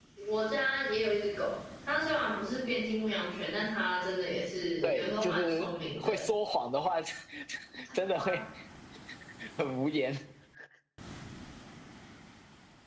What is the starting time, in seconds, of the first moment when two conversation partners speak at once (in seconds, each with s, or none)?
4.8 s